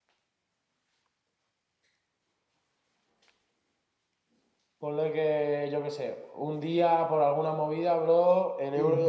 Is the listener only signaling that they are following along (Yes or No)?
Yes